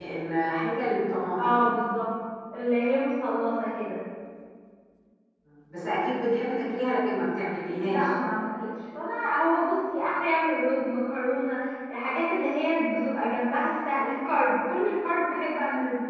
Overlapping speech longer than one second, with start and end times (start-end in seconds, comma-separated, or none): none